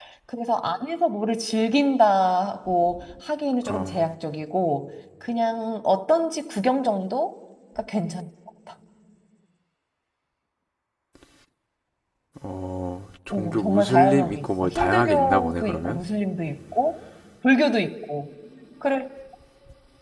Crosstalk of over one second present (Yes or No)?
Yes